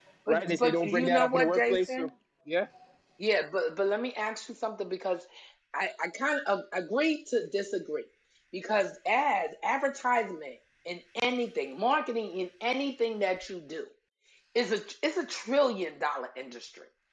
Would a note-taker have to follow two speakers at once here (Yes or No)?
Yes